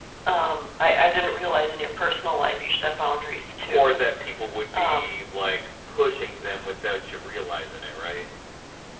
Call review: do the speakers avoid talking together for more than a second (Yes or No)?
Yes